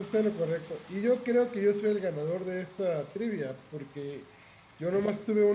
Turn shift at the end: No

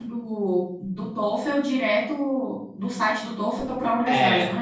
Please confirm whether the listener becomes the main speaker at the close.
Yes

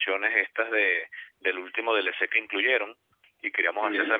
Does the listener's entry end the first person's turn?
No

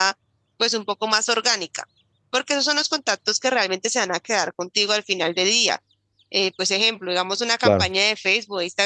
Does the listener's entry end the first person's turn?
No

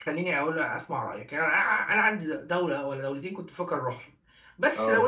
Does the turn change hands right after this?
No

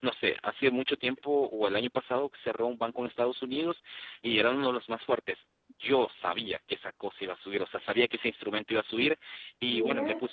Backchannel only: Yes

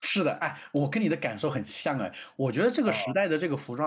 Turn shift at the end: No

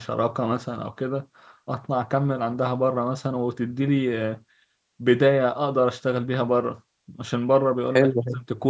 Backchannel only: Yes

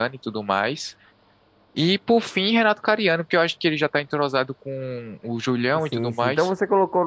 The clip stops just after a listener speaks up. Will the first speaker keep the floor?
No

